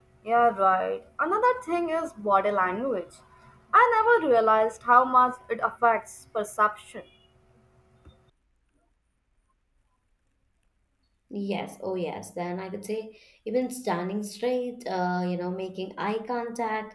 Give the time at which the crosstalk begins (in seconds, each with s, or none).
none